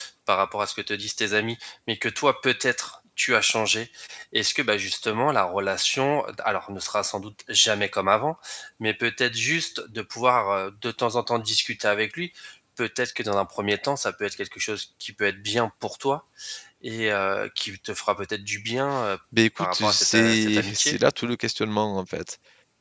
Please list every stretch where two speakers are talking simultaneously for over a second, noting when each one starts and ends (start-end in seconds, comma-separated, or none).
19.6-21.0